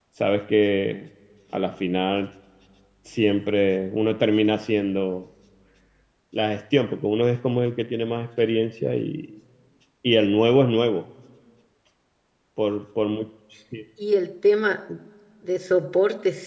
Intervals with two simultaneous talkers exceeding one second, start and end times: none

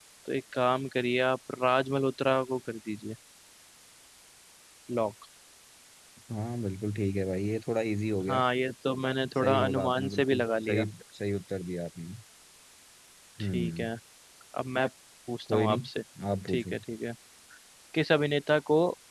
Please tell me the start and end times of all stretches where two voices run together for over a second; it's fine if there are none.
9.4-10.8

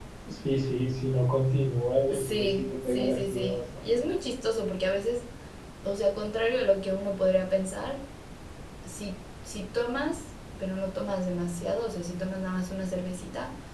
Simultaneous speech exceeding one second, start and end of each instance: 2.1-4.2

